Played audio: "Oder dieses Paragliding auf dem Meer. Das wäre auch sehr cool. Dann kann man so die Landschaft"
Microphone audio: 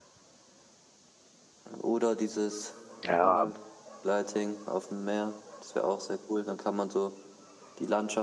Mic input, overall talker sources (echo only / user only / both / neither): both